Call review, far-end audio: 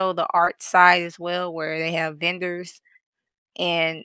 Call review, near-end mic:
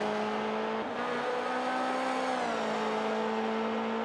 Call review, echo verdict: none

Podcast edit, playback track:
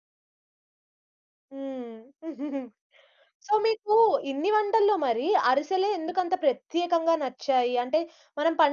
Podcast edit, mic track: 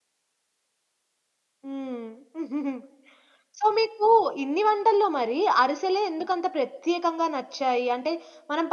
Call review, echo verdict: present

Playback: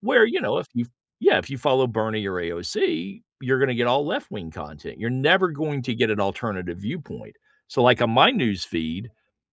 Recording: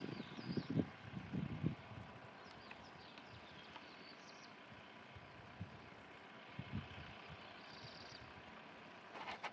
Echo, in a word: none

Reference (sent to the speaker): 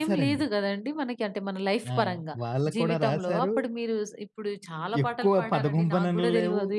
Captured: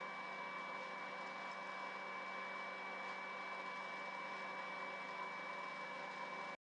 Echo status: none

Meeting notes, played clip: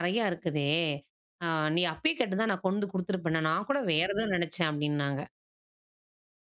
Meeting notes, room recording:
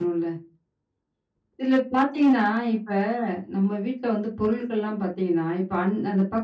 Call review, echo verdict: none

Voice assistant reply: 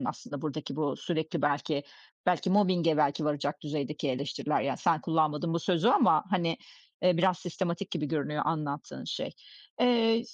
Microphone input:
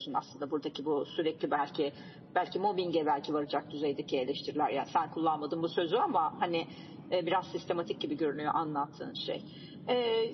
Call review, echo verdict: present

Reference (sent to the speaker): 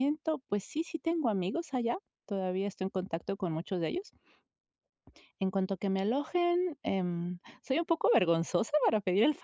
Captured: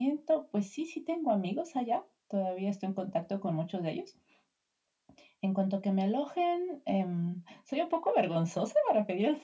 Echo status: present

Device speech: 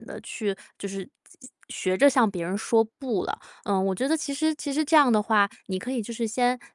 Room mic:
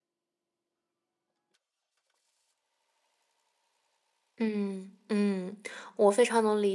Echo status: none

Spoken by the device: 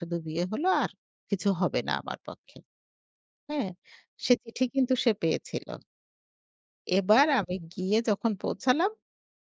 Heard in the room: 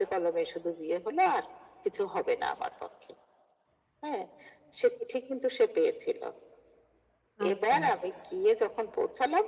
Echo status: present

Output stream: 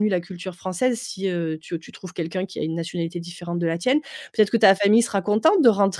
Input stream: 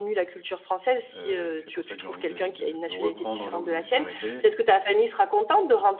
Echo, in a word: present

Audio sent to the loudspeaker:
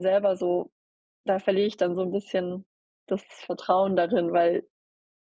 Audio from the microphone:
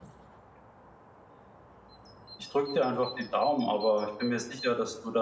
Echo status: none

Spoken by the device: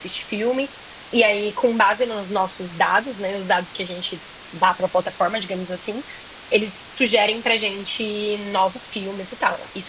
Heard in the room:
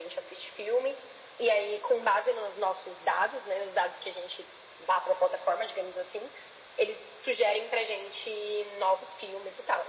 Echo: present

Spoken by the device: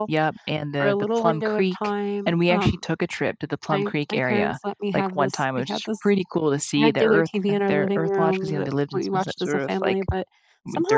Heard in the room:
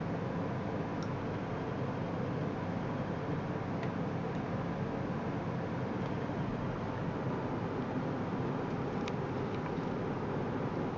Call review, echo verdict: none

